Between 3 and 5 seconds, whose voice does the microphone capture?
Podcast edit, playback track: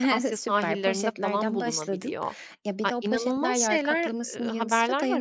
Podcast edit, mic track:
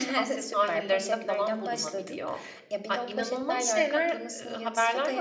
echo only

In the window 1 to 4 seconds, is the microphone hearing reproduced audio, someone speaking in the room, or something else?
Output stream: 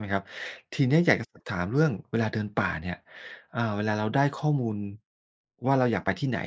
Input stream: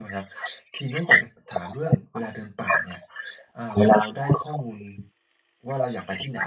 echo only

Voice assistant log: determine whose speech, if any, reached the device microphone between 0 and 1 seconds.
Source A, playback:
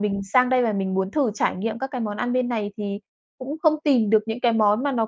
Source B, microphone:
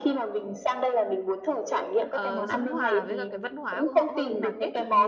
echo only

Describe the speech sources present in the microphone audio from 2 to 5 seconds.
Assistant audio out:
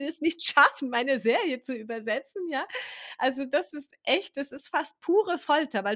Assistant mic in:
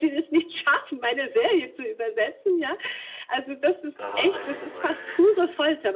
both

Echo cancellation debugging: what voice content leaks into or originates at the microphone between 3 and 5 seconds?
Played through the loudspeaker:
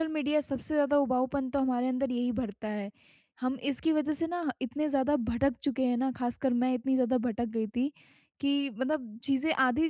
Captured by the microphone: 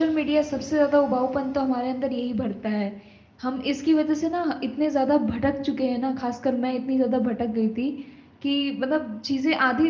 echo only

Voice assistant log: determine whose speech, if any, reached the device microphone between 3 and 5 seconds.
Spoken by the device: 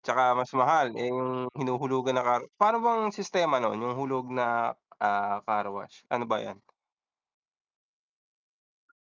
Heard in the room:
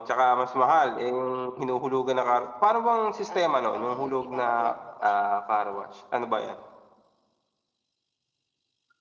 both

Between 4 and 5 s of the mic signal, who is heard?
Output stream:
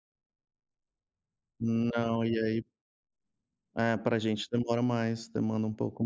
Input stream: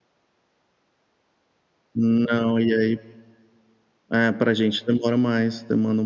echo only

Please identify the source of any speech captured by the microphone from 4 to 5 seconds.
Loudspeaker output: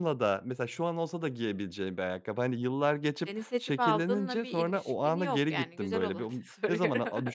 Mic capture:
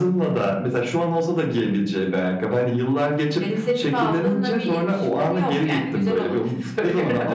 echo only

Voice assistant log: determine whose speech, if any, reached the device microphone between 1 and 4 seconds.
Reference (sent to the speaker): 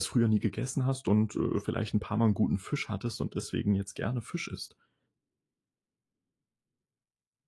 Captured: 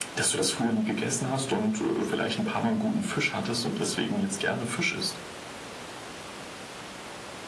echo only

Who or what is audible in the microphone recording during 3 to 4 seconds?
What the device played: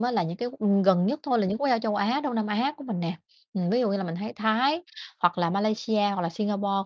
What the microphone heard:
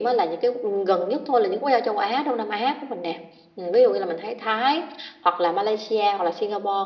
echo only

